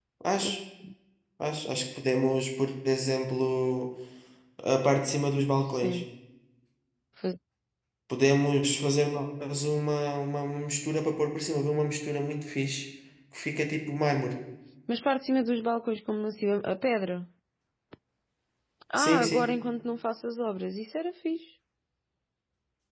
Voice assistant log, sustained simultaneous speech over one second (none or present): none